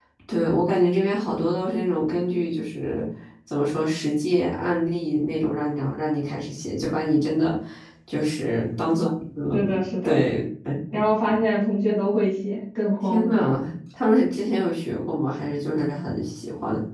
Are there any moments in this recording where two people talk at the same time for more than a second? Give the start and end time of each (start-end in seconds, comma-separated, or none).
none